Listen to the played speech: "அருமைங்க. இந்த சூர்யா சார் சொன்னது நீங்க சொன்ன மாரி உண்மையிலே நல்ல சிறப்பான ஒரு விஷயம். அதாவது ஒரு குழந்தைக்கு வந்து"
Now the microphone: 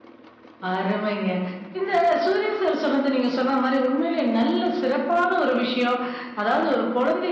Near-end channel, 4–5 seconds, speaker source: echo only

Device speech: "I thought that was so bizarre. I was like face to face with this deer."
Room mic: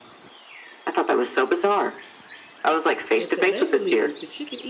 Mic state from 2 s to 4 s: both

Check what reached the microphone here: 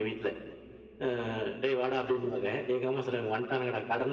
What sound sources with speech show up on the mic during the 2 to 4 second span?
echo only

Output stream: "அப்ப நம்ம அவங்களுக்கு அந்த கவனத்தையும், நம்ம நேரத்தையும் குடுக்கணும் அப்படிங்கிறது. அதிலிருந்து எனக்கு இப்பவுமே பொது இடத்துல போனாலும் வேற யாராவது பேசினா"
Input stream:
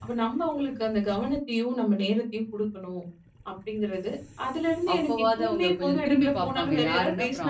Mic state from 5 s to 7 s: both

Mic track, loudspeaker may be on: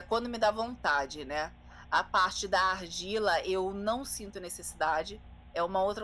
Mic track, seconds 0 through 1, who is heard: echo only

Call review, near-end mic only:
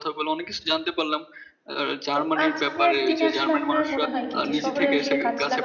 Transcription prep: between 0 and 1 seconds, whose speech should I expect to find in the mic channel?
echo only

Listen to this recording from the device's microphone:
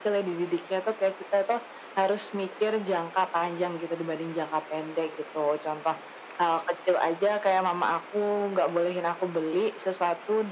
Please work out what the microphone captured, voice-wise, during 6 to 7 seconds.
echo only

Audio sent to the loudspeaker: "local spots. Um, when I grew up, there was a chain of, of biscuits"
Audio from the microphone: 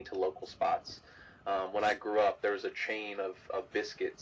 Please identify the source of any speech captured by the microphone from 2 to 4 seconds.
echo only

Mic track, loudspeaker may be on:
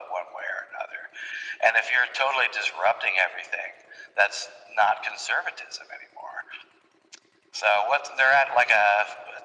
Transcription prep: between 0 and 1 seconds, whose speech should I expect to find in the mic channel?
echo only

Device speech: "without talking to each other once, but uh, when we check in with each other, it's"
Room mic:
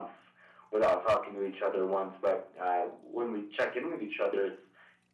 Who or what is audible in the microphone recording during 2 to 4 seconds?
echo only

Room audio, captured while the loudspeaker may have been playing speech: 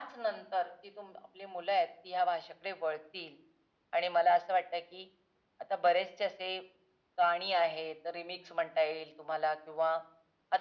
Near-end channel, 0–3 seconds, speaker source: echo only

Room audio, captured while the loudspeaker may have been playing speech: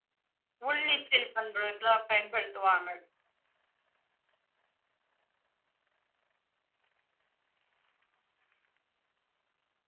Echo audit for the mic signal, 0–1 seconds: user only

